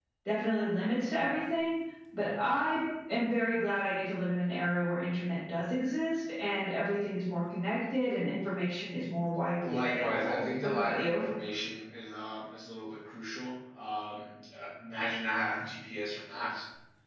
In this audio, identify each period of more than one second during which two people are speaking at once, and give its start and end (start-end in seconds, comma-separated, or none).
9.6-11.2